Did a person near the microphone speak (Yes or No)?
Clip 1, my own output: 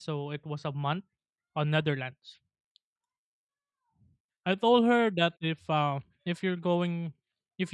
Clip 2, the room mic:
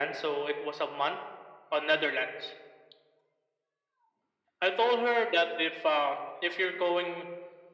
No